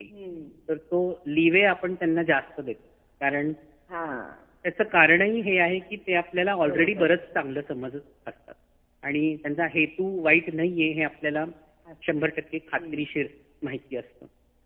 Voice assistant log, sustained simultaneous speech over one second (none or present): none